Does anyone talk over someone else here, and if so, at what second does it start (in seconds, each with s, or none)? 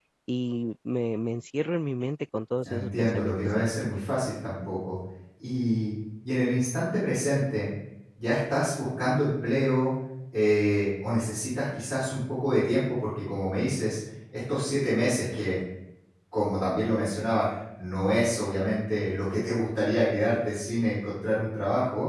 2.6 s